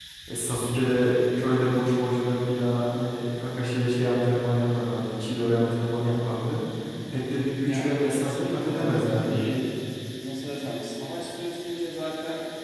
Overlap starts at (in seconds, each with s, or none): 7.7 s